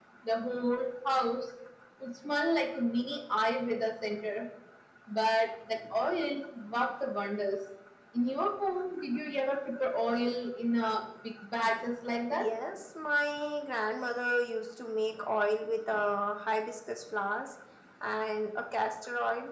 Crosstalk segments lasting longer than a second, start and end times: none

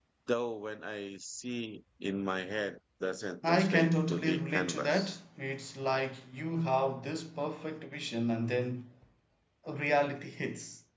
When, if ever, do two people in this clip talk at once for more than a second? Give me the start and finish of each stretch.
3.5-5.1

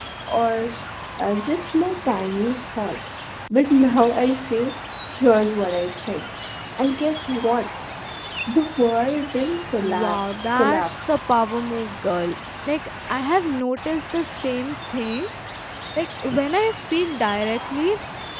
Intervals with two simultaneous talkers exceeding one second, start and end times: 9.7-11.2

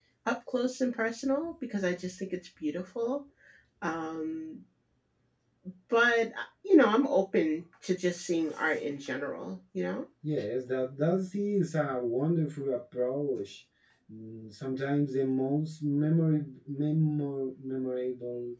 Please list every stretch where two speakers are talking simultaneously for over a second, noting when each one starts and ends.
none

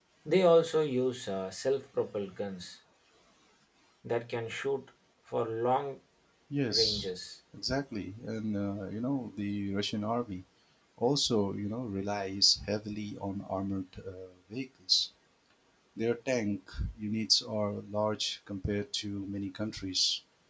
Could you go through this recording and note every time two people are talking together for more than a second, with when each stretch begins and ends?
none

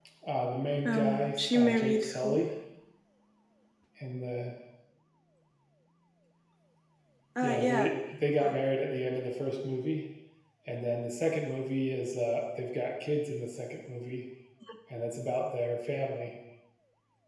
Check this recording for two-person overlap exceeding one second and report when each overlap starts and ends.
0.8-2.5

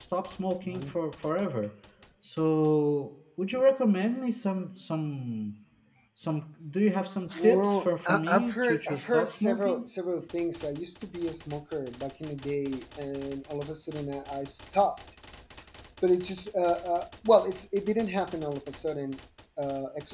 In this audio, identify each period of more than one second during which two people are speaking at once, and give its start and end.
7.4-9.8

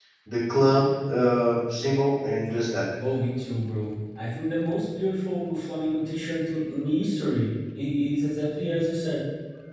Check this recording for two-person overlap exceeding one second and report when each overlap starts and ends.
none

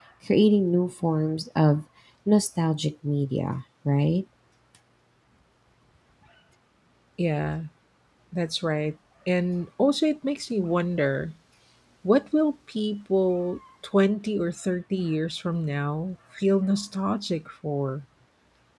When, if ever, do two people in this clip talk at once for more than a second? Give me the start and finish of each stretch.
none

